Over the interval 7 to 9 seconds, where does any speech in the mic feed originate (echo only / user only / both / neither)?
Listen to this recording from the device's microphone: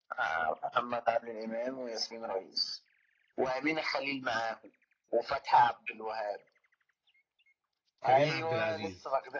both